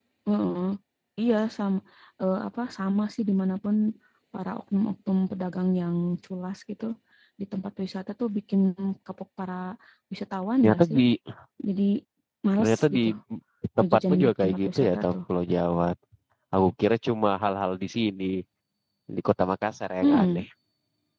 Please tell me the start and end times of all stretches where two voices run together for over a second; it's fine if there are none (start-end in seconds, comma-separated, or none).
13.8-15.1